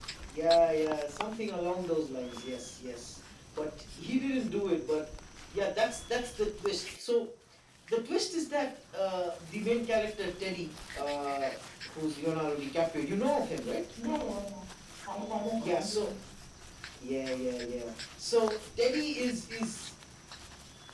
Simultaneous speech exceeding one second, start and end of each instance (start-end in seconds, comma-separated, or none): none